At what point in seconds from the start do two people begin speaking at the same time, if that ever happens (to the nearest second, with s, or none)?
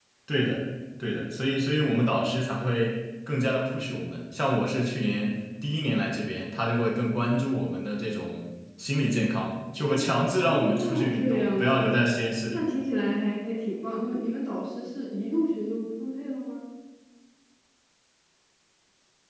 10 s